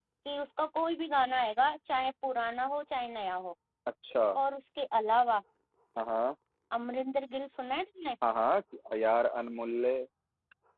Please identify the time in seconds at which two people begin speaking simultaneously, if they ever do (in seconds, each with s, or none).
none